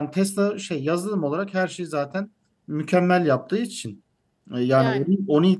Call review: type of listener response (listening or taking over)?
listening